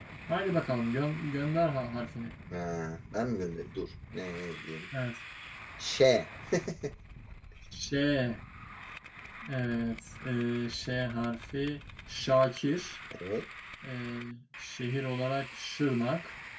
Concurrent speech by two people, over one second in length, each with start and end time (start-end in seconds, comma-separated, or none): none